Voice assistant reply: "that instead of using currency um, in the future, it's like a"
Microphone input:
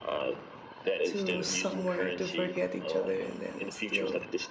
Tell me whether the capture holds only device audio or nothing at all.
No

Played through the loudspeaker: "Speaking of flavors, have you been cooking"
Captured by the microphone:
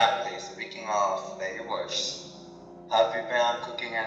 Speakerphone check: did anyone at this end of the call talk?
No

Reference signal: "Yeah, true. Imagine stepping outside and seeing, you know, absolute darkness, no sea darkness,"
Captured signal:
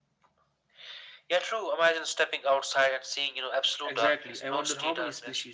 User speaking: Yes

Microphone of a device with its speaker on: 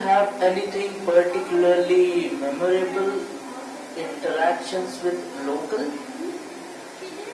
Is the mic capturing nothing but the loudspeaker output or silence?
No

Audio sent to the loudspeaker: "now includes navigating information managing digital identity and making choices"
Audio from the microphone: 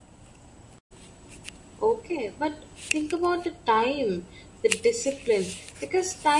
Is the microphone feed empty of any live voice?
No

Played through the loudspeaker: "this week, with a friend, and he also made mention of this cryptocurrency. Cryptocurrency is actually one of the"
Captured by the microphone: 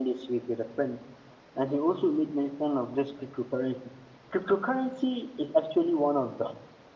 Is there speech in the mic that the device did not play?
No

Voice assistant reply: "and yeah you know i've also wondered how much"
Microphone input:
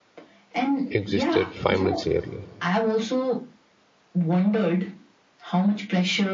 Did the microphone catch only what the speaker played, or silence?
No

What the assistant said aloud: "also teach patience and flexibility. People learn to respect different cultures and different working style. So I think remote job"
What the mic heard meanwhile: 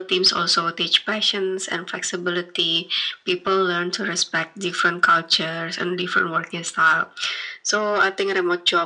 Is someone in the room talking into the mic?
No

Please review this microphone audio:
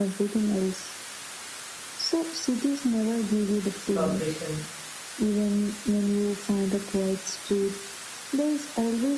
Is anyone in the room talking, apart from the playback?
Yes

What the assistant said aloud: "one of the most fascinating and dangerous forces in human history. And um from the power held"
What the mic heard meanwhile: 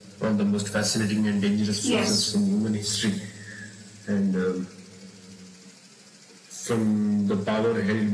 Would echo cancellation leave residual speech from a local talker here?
Yes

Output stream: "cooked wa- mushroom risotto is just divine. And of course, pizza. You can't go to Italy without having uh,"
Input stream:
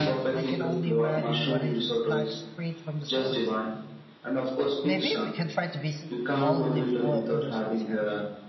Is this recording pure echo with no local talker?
No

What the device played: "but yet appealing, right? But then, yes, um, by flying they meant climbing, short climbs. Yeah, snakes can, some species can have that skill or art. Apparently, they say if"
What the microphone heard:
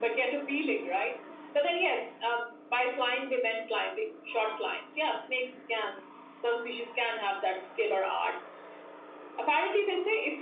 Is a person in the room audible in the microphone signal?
No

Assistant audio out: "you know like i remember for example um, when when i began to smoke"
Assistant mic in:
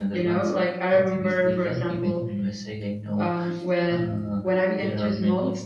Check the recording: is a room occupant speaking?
Yes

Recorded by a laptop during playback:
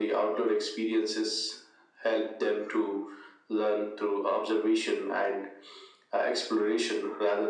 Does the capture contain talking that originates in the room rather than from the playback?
No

